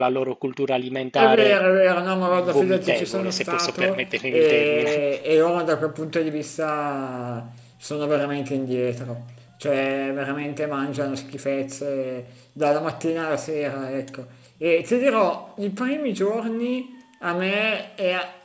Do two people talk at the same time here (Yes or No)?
Yes